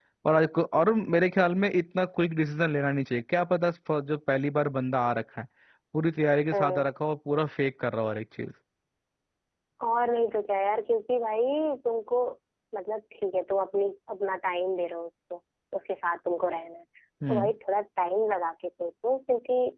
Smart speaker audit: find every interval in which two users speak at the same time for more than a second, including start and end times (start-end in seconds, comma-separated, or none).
none